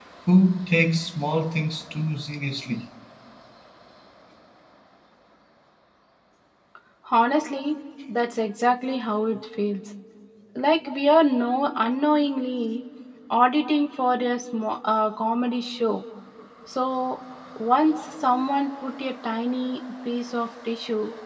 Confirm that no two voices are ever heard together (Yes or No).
Yes